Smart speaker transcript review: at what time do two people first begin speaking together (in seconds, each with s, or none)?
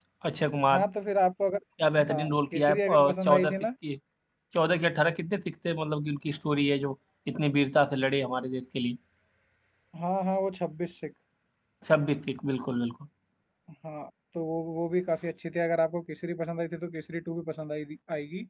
2.1 s